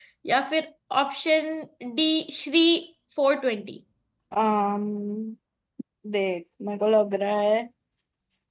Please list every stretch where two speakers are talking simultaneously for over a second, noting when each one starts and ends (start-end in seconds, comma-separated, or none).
none